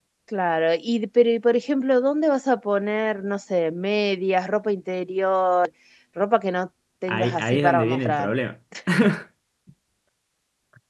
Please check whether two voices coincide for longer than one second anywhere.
Yes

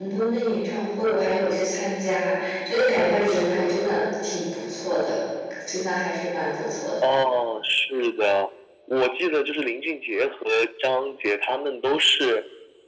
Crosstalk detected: No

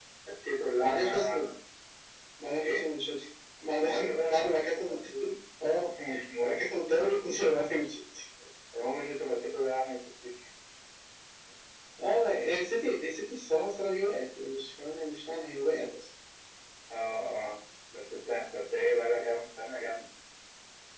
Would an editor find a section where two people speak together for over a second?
Yes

